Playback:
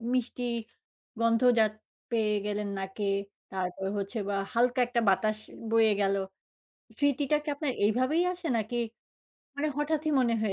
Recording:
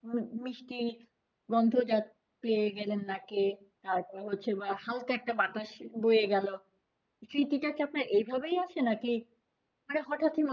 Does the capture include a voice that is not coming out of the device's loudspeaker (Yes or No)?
No